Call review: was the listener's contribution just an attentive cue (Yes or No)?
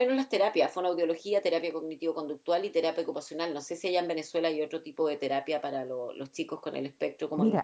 No